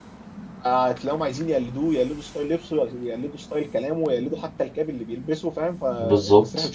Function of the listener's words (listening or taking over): listening